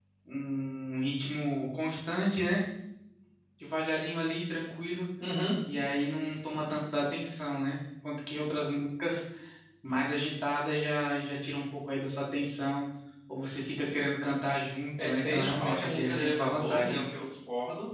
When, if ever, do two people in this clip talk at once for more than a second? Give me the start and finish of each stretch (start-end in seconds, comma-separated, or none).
15.0-17.0